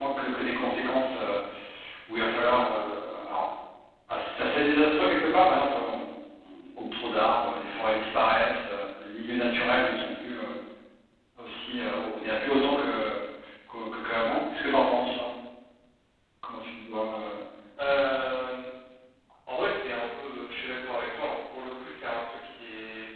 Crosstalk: none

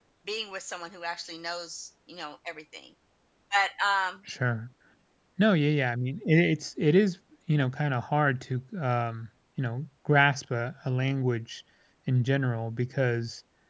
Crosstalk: none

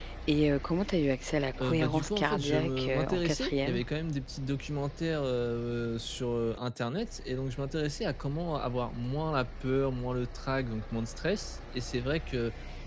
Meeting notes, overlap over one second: present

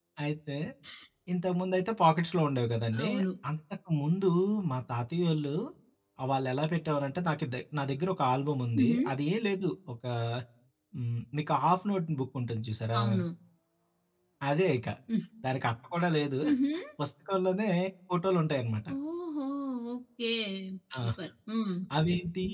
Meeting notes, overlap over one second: none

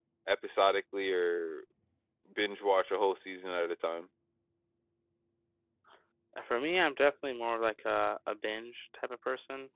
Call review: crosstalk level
none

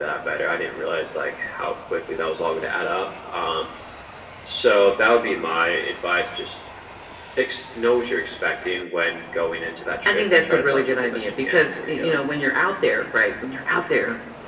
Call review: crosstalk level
present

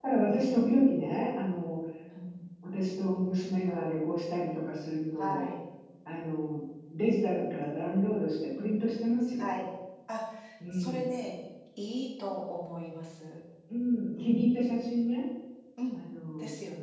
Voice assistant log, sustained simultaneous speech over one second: none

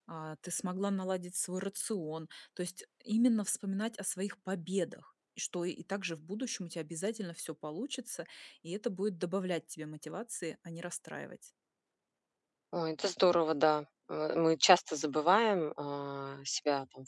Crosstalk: none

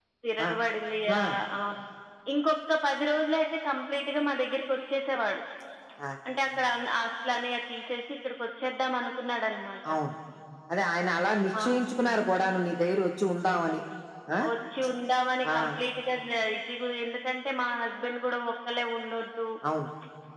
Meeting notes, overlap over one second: none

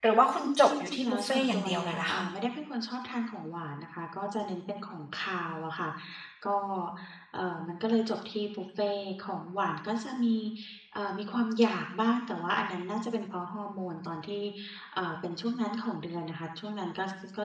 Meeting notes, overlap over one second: present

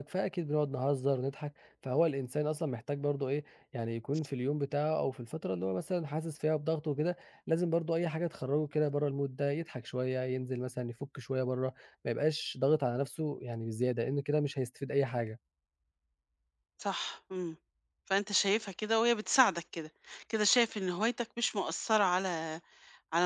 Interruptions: none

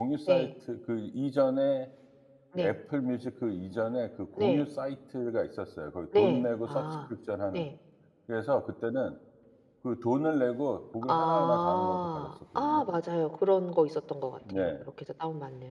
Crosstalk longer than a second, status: present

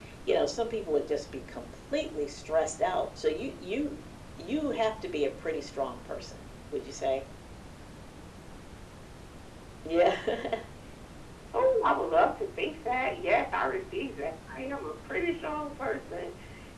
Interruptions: none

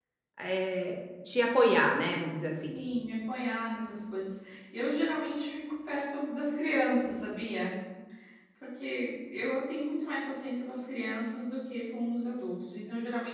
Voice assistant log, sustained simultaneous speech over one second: none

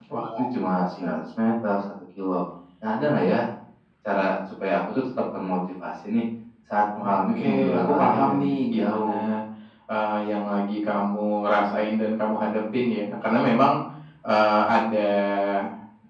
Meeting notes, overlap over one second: present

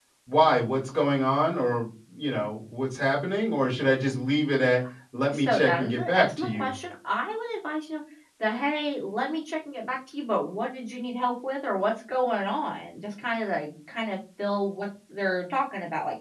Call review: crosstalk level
present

